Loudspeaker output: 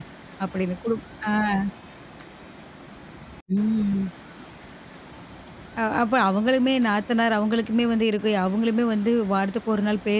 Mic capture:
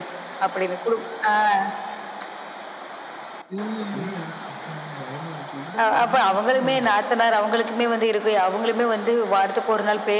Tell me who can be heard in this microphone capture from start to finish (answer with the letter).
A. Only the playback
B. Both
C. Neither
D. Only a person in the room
B